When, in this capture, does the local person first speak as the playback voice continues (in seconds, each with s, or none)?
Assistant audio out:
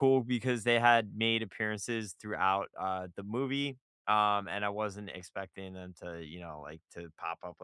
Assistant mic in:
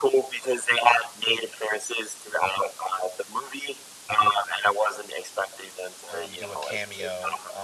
6.1 s